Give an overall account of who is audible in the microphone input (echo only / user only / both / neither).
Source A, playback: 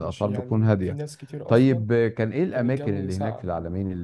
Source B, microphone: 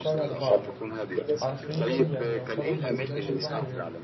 both